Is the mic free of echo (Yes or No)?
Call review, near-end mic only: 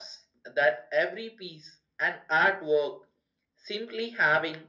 No